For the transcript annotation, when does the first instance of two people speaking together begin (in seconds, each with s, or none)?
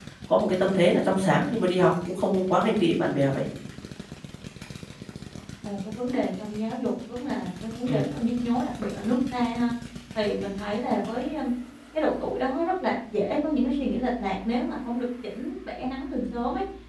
none